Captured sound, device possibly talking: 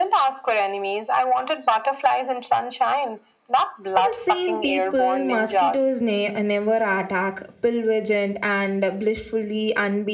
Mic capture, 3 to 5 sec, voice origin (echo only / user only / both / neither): both